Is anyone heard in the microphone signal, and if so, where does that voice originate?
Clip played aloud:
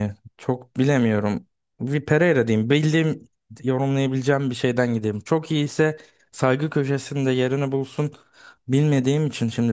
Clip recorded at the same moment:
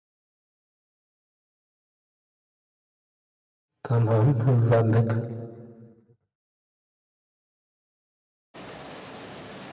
user only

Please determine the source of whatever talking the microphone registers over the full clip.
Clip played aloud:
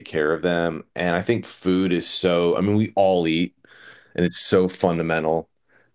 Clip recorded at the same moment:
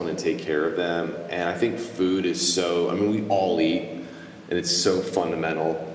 echo only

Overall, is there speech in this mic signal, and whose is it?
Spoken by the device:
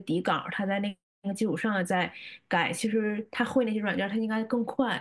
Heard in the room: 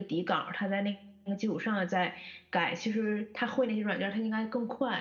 echo only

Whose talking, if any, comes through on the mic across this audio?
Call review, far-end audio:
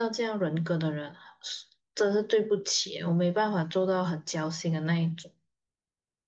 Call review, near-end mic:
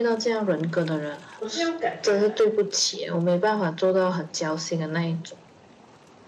both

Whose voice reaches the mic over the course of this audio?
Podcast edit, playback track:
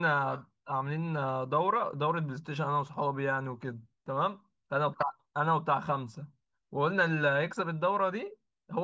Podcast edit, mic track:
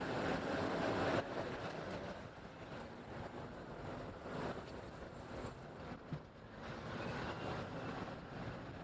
neither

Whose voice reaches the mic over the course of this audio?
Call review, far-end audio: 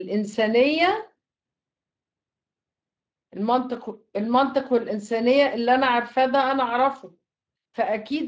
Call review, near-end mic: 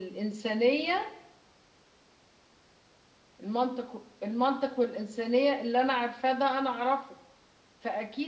echo only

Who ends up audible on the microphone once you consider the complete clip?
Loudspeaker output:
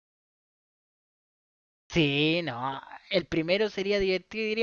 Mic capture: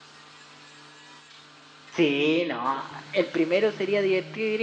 echo only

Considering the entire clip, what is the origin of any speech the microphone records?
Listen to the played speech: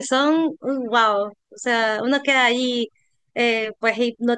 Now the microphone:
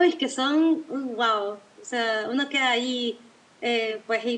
echo only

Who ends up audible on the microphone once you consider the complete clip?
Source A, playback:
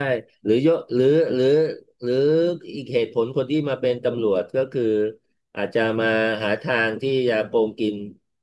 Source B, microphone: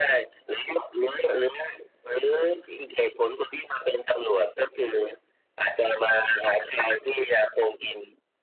echo only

